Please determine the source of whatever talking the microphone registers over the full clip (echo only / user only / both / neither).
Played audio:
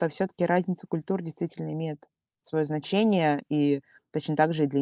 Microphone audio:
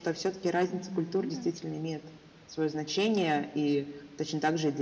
both